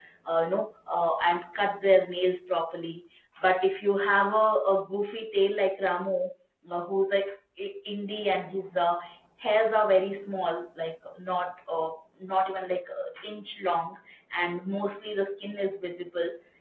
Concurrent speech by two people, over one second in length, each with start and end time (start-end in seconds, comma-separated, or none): none